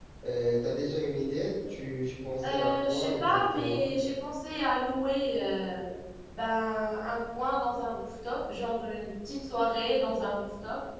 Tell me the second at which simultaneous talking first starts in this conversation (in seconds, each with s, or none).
2.4 s